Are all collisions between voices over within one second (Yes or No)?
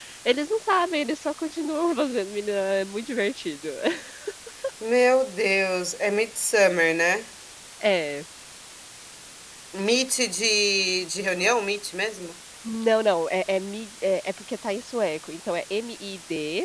Yes